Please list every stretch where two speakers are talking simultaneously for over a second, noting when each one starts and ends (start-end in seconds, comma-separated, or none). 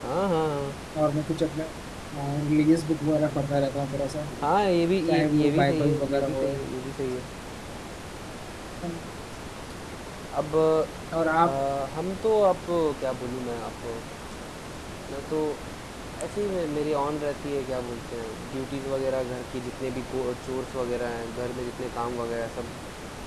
5.1-6.4